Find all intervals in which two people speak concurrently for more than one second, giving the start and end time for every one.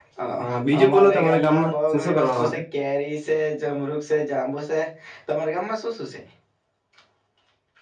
0.8-2.6

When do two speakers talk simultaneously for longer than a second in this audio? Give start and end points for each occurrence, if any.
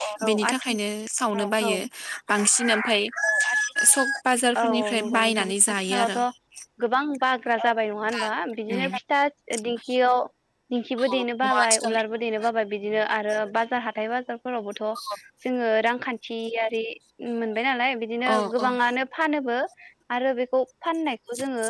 4.6-6.2

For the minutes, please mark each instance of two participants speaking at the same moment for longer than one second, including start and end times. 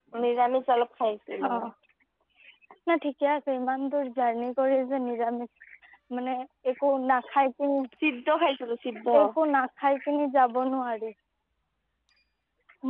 none

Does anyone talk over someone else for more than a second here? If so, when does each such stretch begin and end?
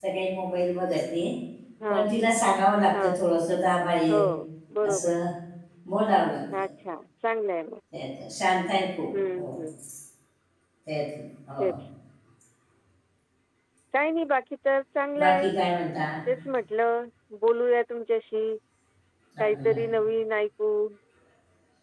none

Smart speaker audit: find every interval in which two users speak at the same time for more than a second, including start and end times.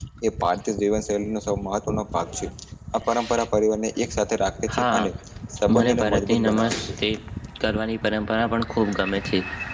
5.7-6.9

